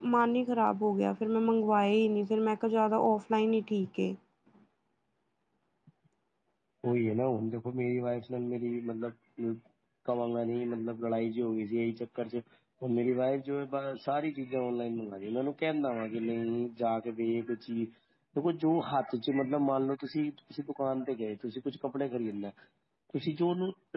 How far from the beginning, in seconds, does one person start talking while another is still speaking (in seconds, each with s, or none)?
none